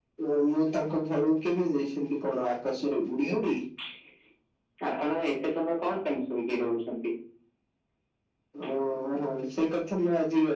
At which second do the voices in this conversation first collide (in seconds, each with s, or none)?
none